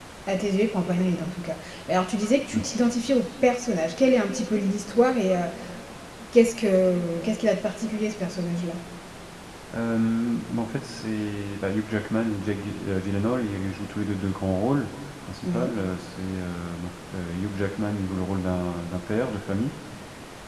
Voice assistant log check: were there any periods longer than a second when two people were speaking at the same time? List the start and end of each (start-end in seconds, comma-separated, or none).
none